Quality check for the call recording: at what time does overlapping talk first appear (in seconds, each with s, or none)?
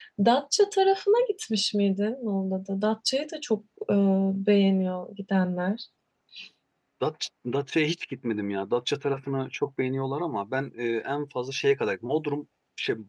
none